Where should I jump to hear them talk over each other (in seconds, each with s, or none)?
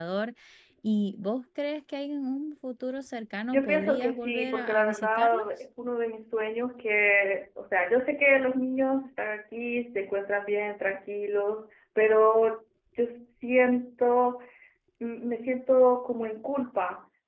3.5 s